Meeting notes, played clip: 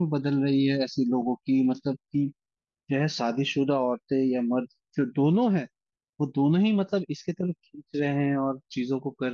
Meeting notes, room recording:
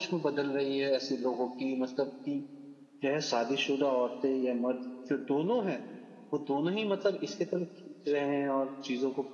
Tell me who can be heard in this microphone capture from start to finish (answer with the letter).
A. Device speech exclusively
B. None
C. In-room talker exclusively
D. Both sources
A